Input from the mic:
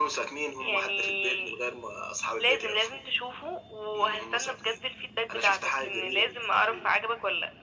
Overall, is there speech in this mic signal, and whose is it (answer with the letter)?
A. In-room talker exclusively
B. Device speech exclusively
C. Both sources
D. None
B